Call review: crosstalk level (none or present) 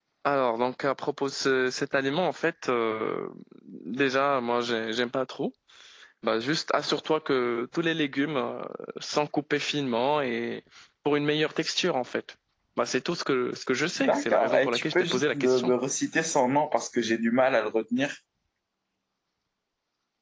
present